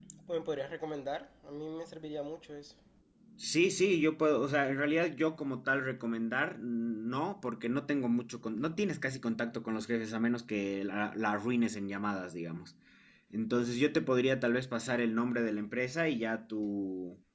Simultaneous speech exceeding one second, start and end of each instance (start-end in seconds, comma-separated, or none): none